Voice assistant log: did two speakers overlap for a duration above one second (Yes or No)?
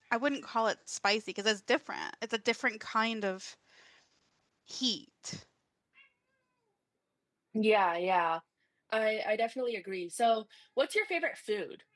No